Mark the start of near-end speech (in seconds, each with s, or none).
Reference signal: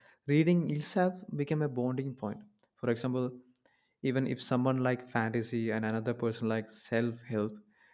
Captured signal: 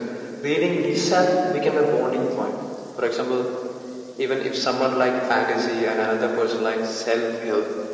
none